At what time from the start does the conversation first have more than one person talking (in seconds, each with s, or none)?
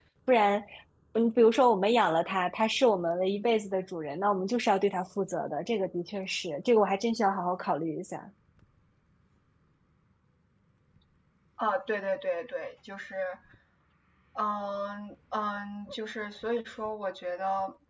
none